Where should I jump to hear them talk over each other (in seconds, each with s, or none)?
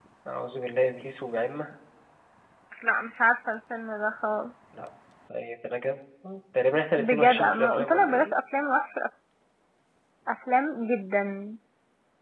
7.0 s